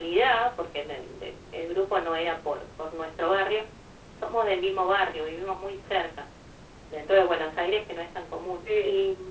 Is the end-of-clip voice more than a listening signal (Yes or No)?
No